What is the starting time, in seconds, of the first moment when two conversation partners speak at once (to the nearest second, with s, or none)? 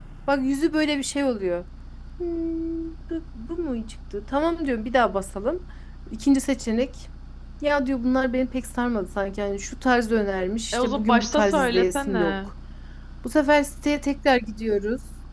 11 s